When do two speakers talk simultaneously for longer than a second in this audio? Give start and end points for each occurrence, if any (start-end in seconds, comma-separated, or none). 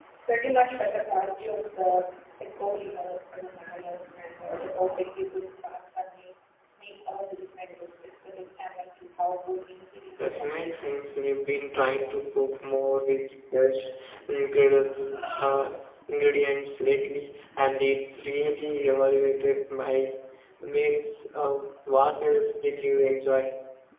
none